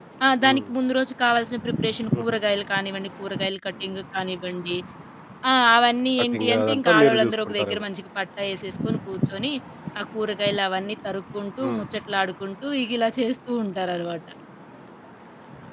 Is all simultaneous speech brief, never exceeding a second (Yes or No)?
No